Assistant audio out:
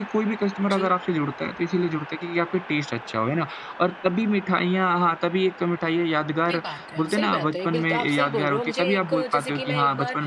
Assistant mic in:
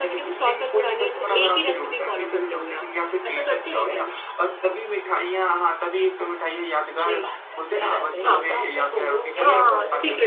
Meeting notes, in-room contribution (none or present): present